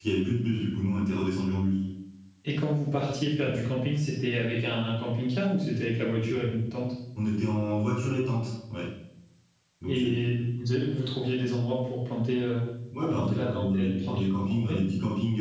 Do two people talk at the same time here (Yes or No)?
Yes